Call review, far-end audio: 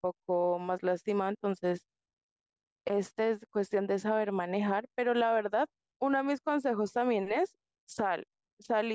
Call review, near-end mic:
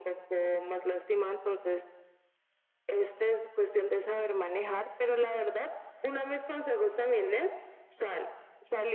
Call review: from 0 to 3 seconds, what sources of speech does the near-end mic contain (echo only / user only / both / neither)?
echo only